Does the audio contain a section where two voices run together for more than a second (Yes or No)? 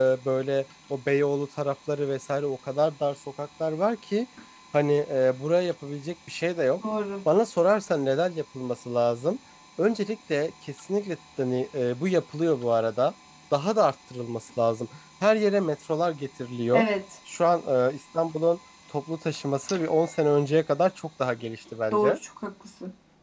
No